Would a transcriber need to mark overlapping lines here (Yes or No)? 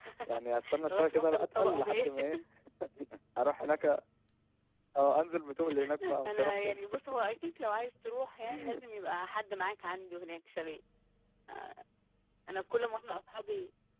Yes